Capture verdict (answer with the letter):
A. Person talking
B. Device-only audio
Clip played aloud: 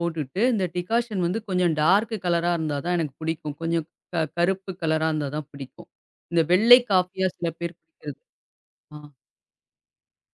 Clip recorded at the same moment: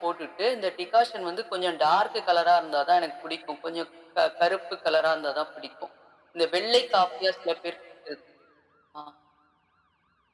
B